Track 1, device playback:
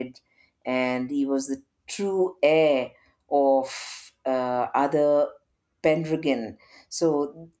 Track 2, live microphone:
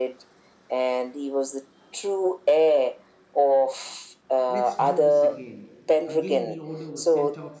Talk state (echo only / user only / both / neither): both